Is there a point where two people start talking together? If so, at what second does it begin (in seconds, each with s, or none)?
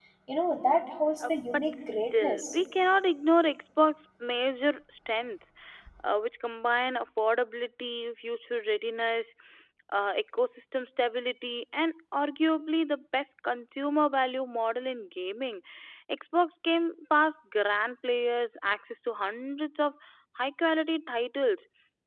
1.3 s